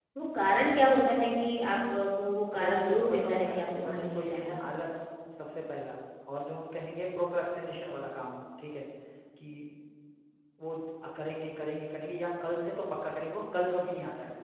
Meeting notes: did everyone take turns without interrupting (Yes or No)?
No